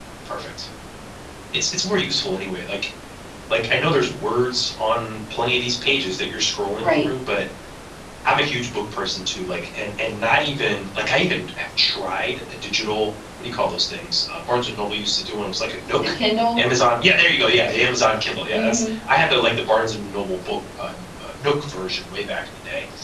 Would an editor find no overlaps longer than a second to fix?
Yes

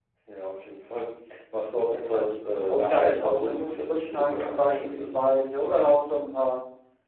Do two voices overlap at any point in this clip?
Yes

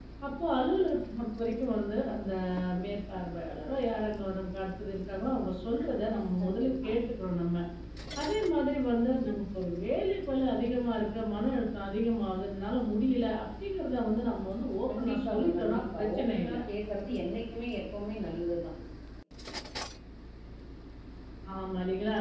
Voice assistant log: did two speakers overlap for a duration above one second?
Yes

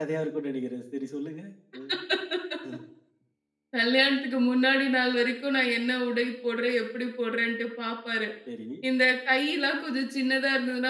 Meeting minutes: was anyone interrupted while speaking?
No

